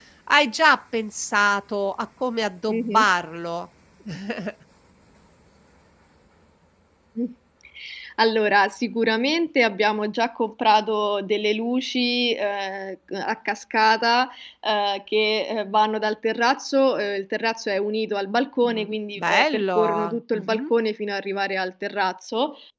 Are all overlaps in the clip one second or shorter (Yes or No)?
No